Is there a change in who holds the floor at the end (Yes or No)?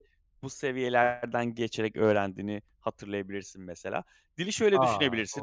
No